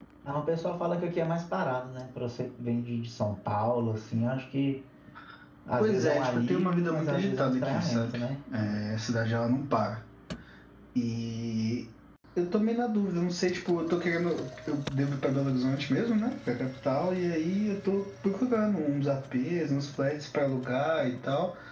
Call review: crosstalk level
present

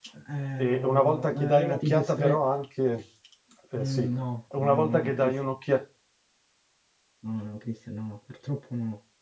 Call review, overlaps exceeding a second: present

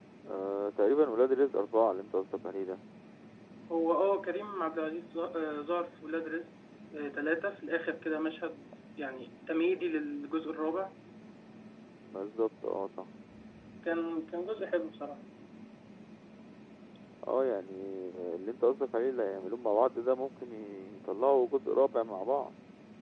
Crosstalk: none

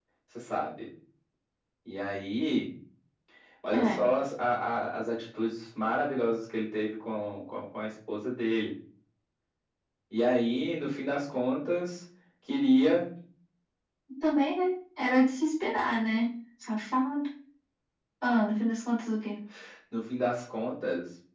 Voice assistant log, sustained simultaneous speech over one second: none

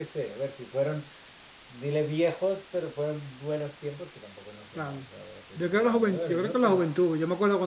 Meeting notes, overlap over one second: present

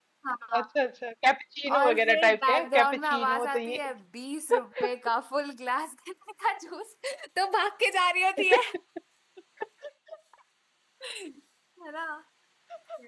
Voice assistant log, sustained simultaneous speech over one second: present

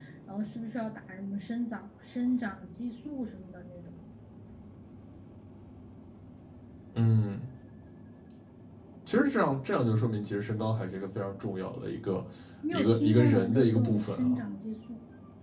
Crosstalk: present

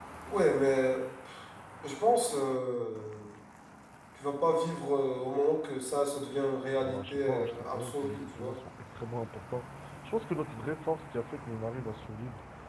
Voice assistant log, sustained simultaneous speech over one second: present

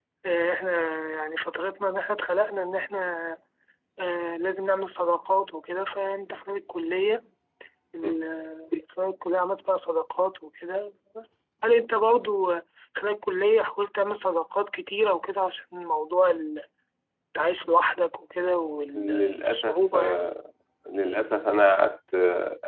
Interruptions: present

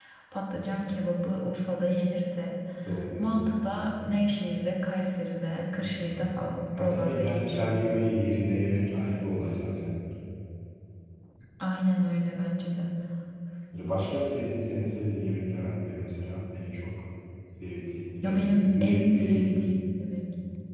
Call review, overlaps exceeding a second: present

